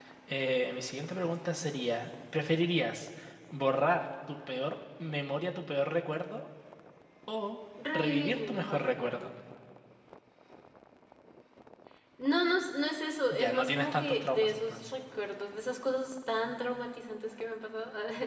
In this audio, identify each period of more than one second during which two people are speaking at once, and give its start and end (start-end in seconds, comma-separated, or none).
7.9-9.3, 13.3-14.9